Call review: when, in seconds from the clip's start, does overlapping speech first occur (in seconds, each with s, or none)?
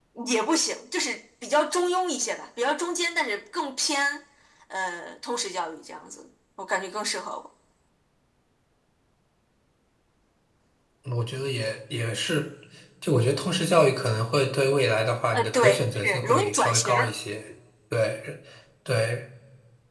15.3 s